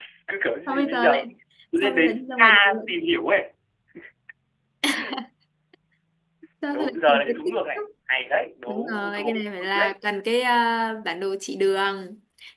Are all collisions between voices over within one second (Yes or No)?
No